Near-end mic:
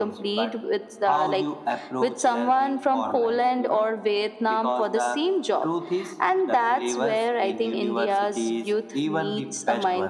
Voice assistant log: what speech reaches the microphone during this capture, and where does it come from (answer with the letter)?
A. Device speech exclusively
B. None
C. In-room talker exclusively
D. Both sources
A